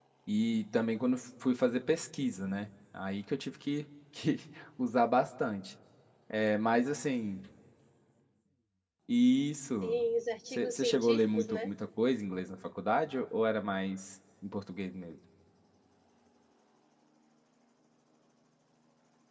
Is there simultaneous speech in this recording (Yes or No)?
Yes